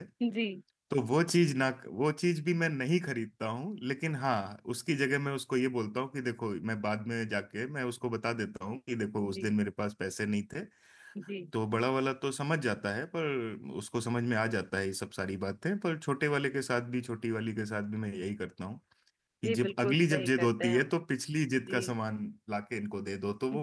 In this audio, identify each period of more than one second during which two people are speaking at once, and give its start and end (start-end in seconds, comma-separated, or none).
19.4-20.9